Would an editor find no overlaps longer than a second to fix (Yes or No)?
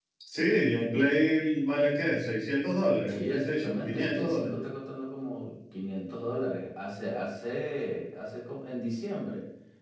No